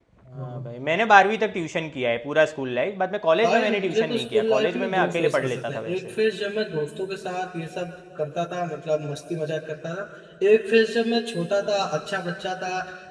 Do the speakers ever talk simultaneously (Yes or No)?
Yes